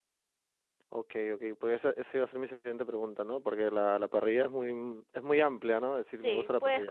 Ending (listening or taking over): taking over